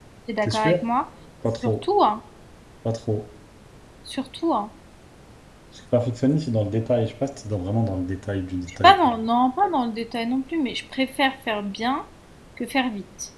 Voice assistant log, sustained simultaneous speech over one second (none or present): none